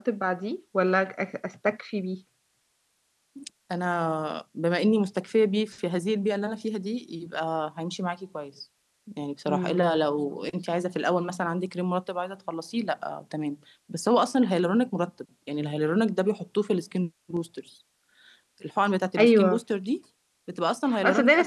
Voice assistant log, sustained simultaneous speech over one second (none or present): none